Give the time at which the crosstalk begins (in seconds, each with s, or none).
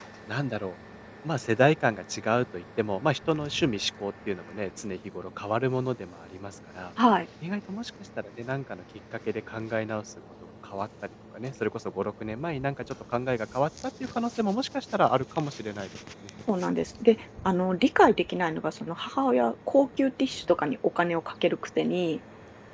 none